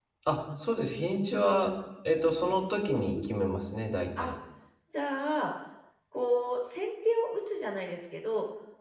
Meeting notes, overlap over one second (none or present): none